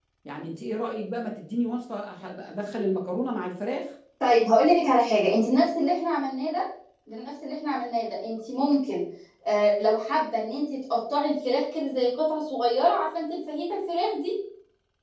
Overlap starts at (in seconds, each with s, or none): none